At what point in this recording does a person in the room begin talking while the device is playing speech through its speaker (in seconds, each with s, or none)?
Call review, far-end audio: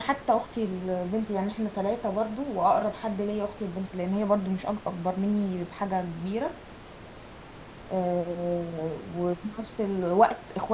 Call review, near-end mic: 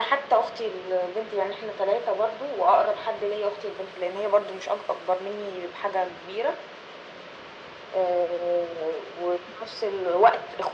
none